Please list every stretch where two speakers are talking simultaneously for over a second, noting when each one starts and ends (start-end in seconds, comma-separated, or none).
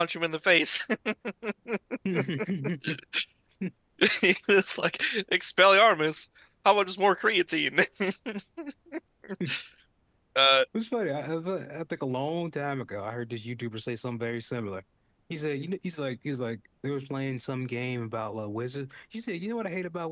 none